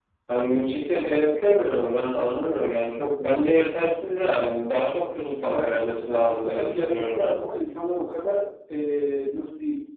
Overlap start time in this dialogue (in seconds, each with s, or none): 5.5 s